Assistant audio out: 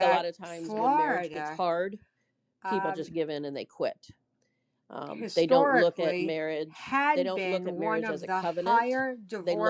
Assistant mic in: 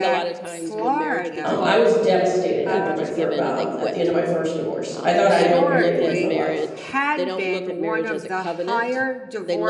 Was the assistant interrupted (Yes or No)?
Yes